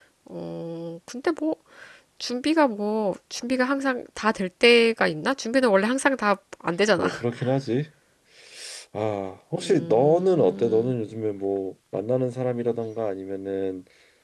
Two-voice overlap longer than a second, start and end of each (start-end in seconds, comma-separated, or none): 9.6-10.9